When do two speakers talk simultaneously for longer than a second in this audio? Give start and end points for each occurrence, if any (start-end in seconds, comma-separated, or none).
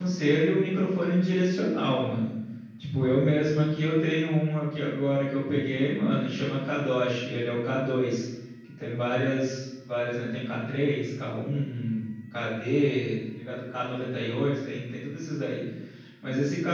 none